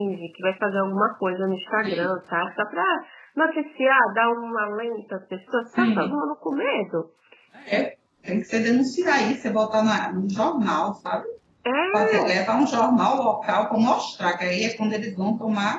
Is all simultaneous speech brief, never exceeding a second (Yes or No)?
Yes